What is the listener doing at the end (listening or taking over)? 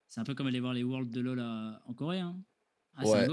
taking over